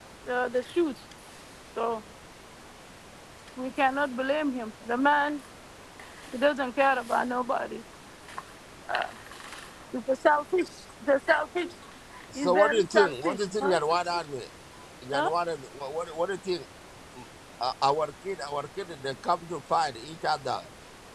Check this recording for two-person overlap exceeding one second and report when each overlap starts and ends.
12.3-13.8

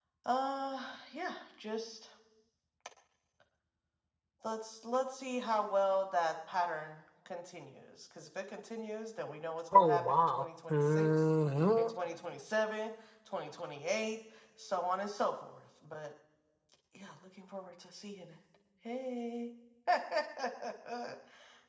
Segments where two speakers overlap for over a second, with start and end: 9.7-11.1

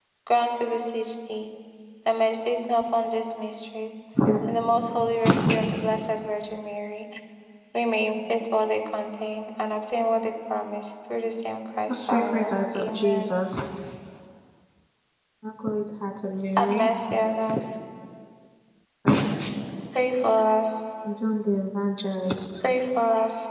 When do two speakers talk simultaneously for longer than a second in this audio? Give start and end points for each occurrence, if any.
11.9-13.3

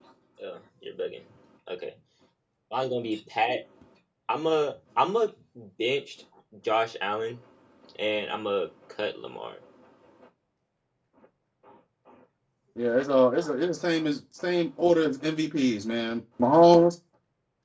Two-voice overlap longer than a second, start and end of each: none

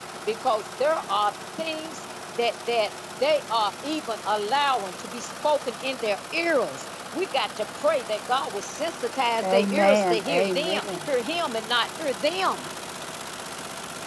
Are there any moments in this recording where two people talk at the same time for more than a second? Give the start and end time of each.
9.4-11.1

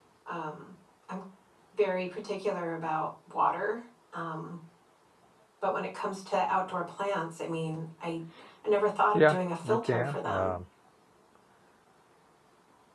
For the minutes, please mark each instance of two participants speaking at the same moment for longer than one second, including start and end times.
9.1-10.5

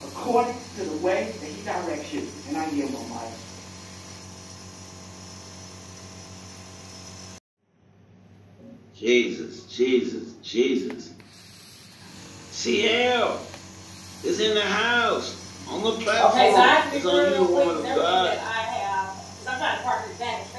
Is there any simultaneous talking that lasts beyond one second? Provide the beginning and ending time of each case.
16.2-18.3

